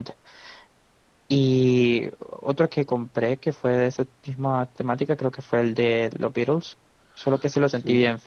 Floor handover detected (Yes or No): No